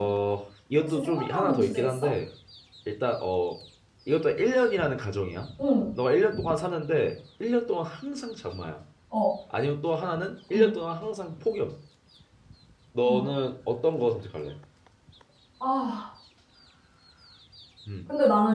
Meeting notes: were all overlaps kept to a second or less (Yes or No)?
No